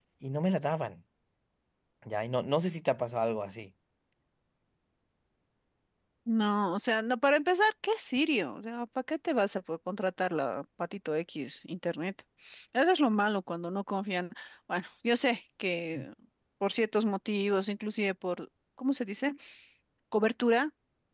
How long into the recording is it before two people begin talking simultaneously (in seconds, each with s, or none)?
none